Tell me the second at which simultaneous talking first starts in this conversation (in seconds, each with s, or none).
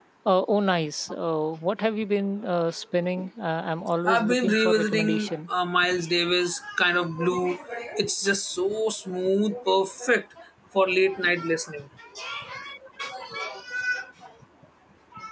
4.1 s